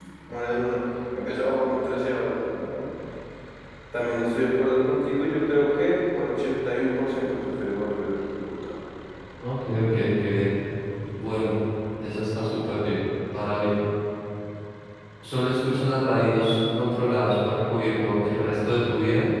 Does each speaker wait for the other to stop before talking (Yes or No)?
Yes